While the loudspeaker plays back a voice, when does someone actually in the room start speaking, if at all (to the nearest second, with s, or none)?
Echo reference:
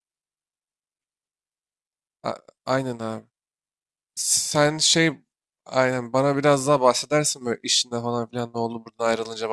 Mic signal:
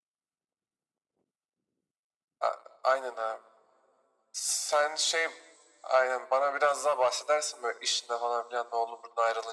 none